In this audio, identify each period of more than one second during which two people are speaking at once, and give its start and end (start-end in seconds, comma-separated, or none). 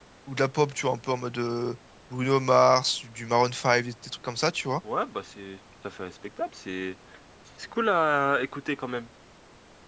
none